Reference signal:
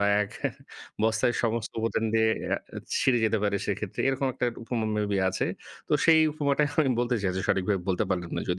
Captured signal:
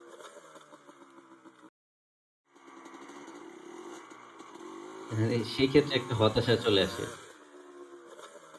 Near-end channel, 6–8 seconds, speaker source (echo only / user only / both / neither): user only